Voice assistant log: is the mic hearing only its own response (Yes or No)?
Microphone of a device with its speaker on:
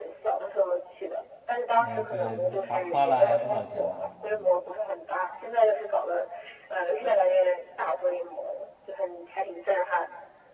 No